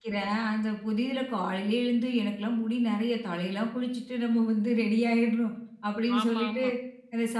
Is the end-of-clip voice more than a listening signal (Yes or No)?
No